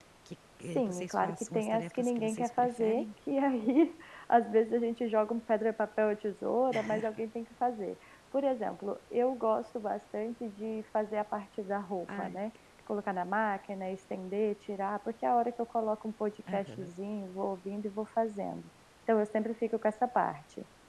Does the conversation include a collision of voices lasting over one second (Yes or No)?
Yes